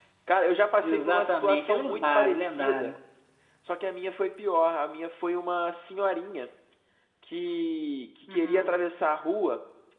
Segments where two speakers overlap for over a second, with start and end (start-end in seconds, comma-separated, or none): 0.8-2.9